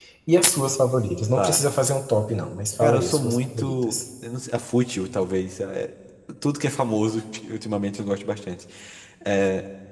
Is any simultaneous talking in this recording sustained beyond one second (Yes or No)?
Yes